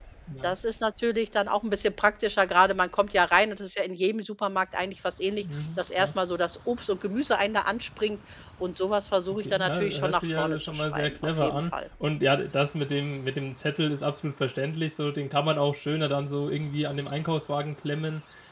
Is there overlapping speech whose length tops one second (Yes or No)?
Yes